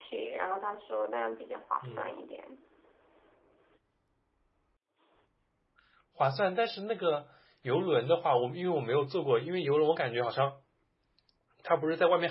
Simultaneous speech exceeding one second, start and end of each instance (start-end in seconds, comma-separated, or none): none